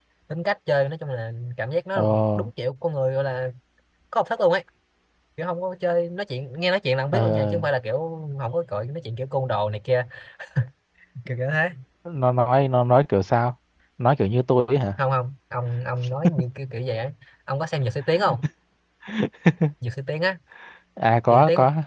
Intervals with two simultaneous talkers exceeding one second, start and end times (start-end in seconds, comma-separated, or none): none